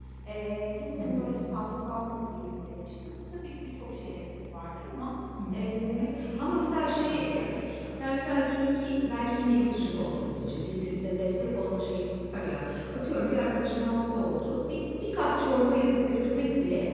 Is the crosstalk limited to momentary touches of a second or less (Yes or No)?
No